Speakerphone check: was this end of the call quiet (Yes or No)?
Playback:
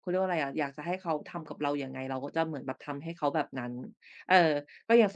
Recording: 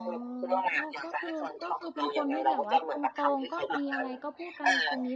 No